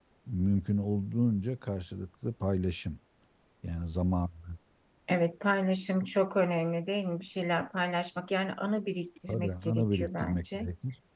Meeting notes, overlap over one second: present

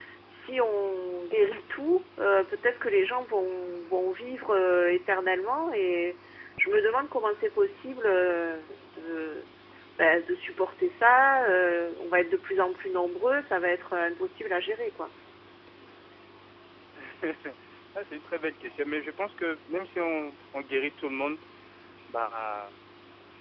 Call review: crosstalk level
none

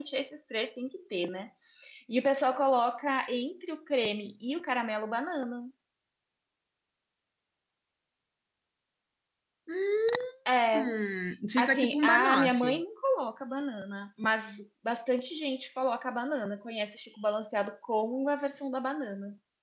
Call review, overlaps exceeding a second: present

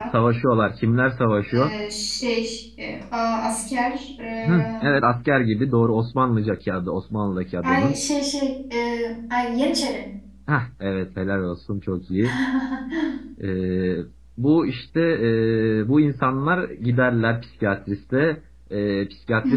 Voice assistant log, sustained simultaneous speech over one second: none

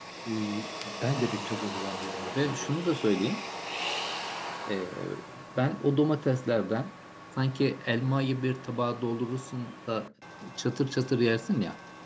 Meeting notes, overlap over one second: none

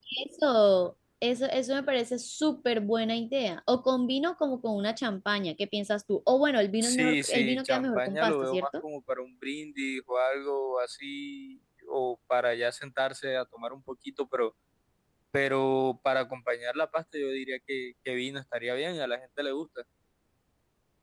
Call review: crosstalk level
present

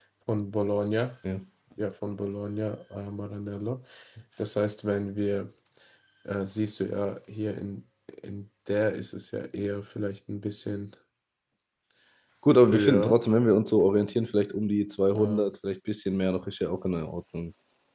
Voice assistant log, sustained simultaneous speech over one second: none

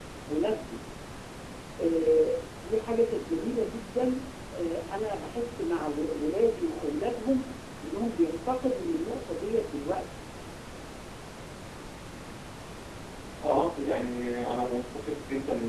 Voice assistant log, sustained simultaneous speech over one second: none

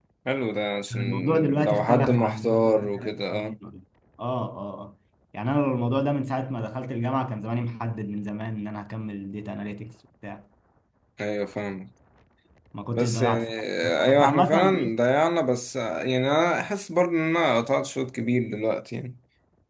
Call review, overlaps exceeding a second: present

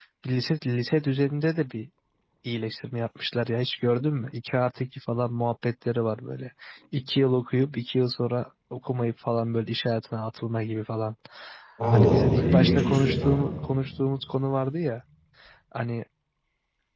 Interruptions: present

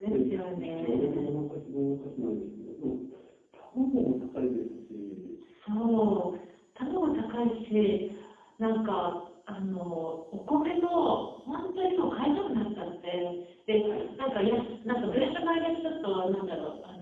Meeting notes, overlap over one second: present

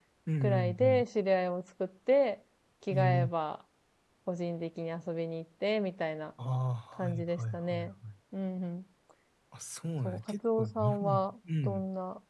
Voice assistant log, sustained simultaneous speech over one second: present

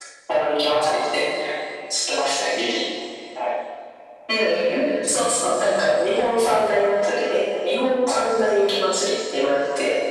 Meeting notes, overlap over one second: none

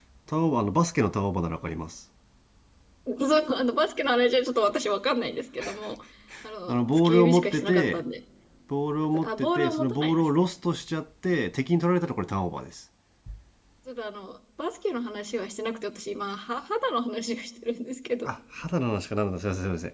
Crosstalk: present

